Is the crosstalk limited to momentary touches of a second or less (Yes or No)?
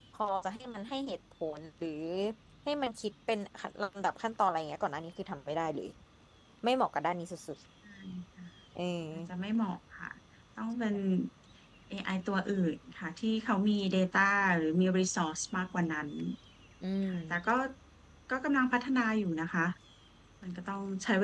Yes